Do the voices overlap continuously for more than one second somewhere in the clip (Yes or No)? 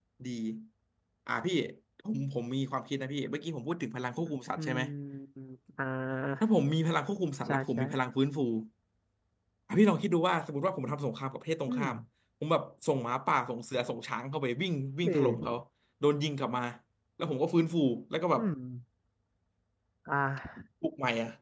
No